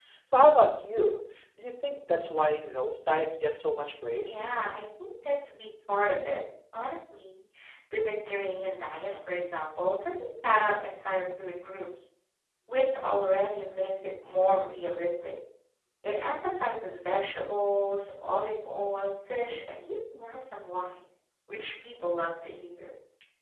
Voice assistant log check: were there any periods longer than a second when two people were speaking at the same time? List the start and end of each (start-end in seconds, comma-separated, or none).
none